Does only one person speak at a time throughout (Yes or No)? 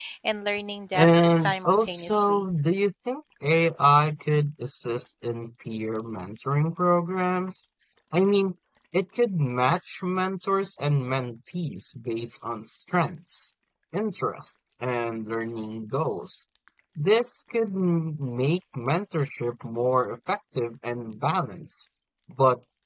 No